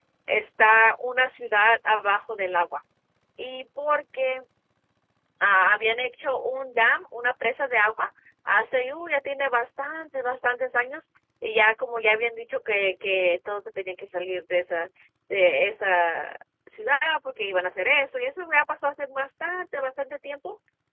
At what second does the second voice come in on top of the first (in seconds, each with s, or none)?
none